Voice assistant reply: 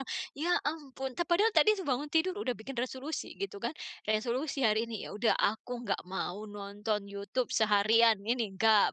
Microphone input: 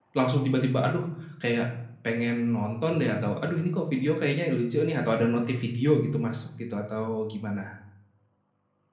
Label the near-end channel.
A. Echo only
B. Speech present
B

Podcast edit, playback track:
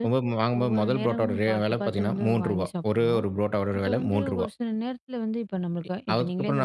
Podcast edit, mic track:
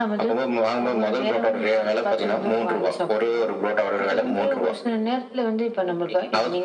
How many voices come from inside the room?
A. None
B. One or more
A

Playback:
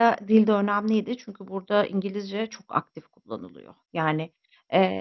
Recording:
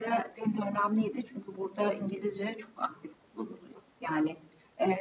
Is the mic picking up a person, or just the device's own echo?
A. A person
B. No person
B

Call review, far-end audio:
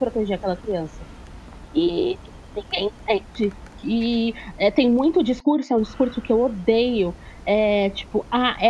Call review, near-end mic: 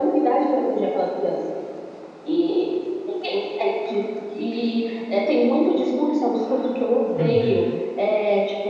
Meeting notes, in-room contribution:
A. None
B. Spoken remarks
B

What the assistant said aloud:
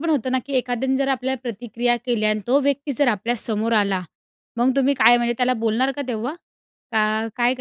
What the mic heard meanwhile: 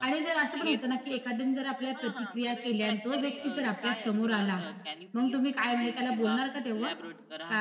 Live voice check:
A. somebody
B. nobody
A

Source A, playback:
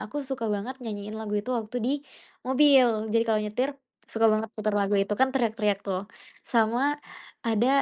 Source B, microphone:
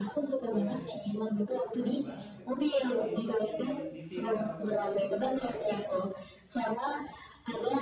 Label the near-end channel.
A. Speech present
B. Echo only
A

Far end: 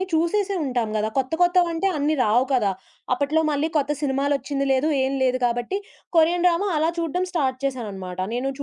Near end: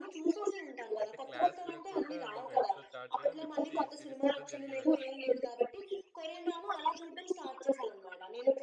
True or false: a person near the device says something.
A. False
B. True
B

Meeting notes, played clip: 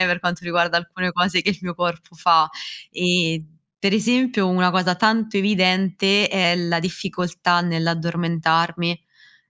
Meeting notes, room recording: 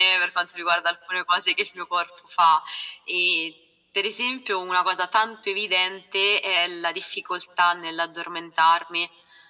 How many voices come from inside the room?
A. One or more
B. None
B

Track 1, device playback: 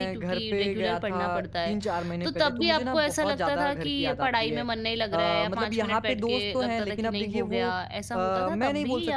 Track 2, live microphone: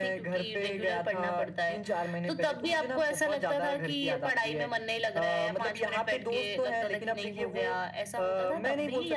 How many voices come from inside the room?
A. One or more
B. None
B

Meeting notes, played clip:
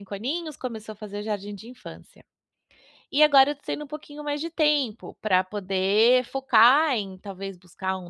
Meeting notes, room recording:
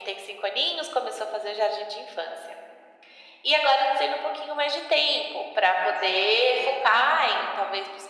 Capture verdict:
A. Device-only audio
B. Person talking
A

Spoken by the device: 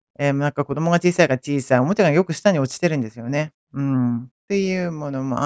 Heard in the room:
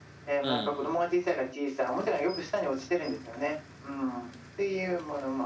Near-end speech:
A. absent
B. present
B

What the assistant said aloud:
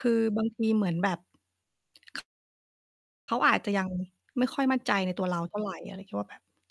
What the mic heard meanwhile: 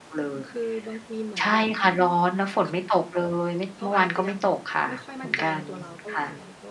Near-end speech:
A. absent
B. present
B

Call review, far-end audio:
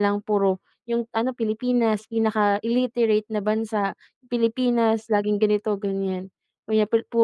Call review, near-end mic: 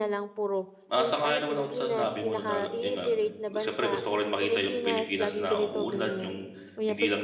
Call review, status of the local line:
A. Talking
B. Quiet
A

